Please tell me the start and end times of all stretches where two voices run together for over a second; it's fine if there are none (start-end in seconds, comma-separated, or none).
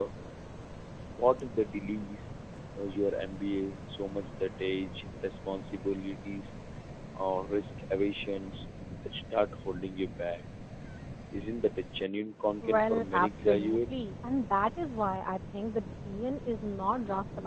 12.6-14.1